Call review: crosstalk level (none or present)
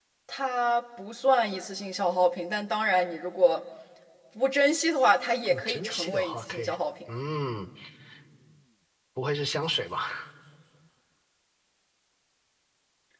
present